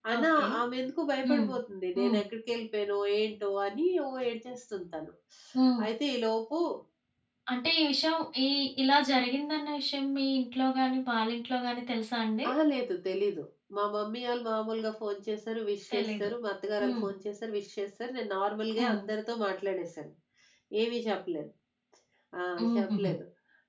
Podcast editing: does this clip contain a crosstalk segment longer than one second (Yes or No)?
No